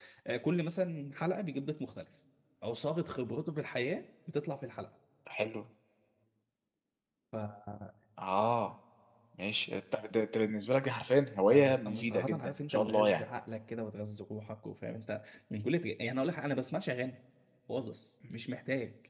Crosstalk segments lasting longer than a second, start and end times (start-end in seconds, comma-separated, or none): 11.5-13.2